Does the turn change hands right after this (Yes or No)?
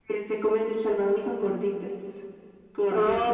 Yes